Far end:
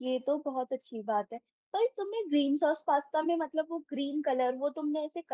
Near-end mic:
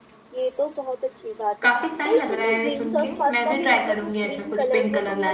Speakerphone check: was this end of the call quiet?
No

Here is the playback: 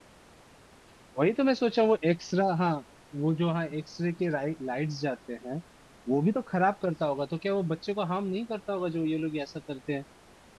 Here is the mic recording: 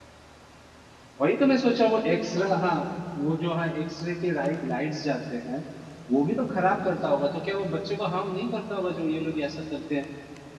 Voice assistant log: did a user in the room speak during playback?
No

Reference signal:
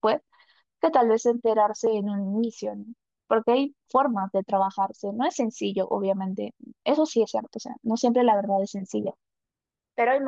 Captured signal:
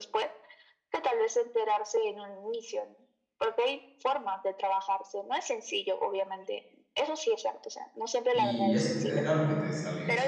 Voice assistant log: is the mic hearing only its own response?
No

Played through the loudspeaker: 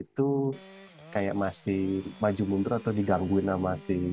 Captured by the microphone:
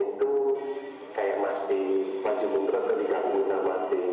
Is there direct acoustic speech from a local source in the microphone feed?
No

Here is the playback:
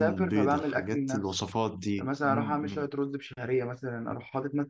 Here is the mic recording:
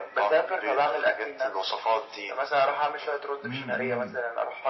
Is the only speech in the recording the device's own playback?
No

